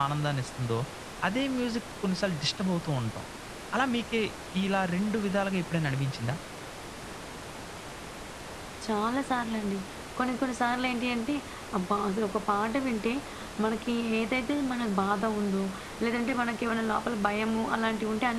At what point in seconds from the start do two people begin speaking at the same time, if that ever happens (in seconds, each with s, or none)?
none